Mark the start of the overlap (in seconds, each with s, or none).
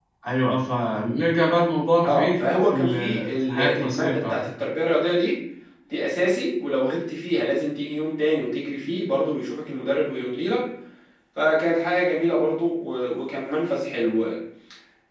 2.0 s